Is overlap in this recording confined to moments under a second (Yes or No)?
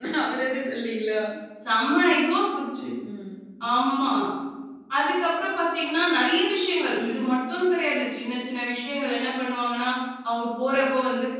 Yes